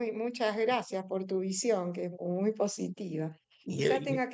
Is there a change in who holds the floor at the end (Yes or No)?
No